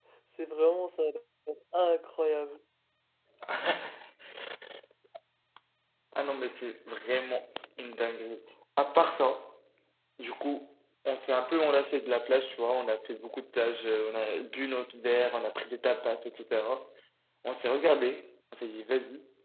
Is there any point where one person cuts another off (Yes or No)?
No